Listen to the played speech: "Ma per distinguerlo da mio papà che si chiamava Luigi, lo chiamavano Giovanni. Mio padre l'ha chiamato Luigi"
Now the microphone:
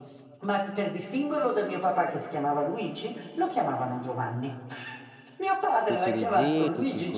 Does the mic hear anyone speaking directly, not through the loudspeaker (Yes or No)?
Yes